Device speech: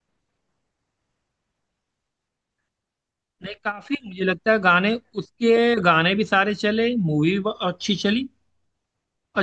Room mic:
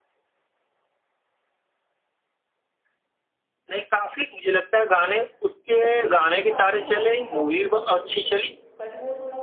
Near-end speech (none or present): present